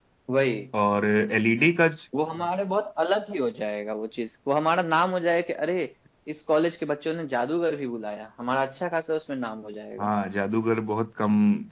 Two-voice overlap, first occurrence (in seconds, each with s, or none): none